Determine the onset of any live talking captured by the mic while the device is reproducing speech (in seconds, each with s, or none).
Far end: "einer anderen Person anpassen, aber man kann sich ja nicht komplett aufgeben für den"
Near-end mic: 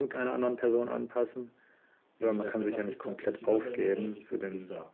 2.2 s